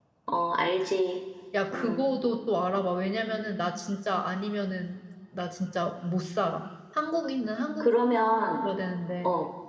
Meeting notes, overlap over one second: none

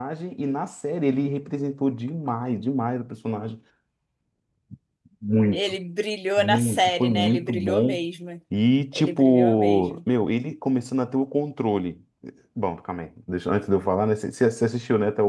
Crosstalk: present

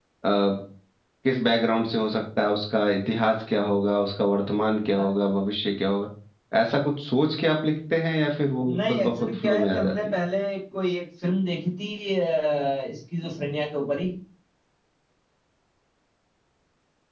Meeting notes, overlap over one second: present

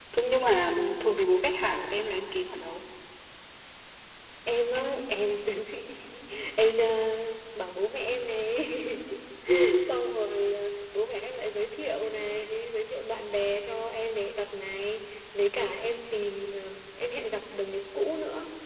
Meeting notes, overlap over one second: none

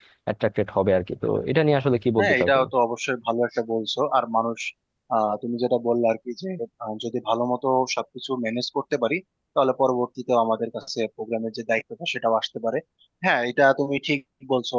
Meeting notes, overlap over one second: none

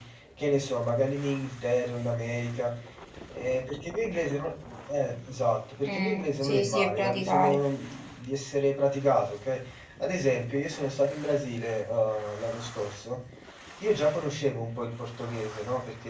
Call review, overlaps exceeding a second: present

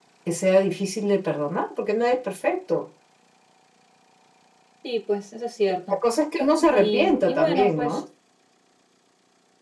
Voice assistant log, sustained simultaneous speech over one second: present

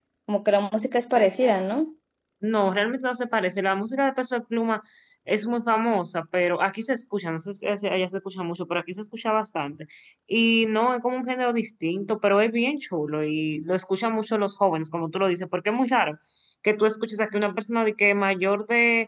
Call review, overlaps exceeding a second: none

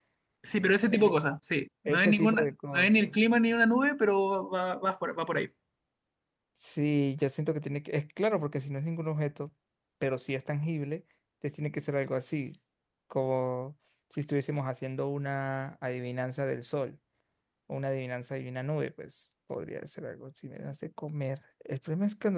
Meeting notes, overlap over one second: present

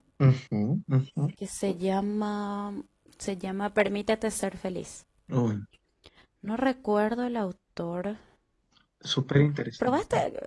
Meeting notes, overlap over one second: none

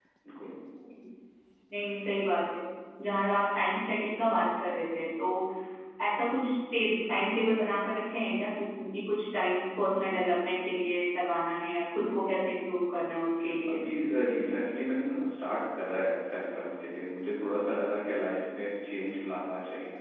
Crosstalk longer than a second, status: none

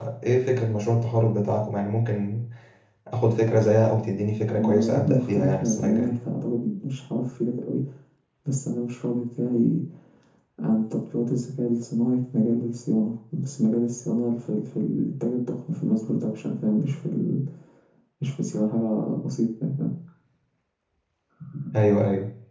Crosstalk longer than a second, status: present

